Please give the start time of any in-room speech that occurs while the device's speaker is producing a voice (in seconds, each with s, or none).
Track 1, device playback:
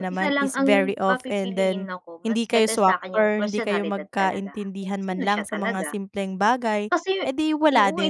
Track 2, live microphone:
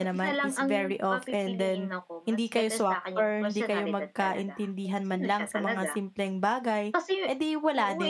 none